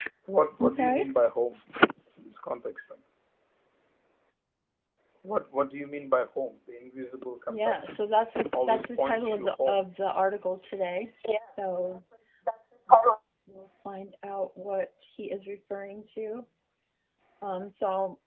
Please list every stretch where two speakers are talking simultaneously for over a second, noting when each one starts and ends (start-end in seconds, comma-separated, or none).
8.6-9.8